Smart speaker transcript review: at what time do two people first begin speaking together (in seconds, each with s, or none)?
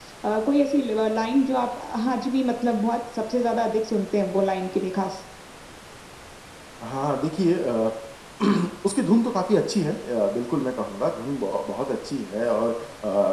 none